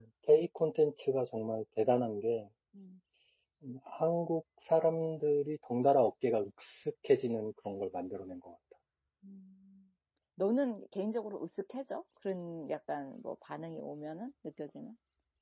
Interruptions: none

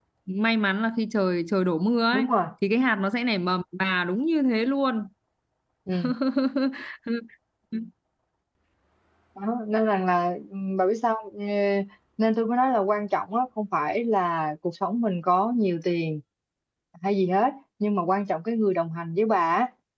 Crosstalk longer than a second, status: none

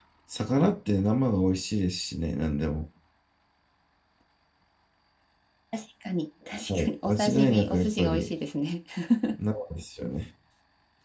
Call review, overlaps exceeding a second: present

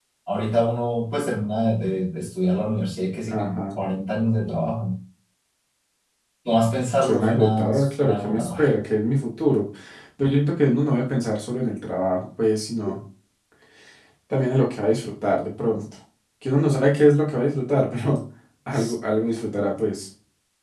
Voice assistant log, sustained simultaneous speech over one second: present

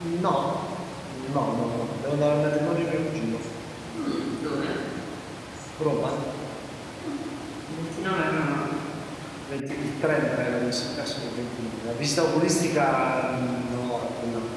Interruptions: none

